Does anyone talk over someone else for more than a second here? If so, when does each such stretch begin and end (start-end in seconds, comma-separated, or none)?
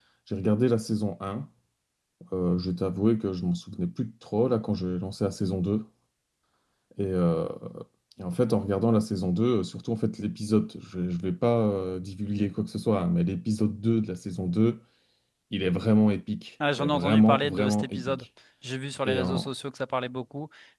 16.8-18.2